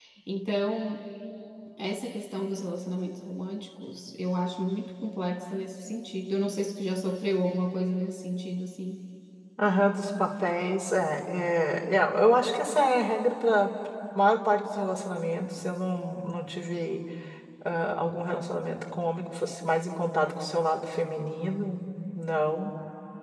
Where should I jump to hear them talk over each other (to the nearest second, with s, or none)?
none